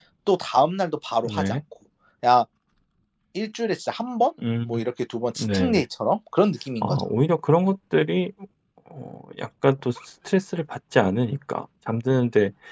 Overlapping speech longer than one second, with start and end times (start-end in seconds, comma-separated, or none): none